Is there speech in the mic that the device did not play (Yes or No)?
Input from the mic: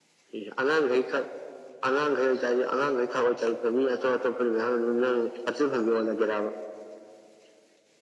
No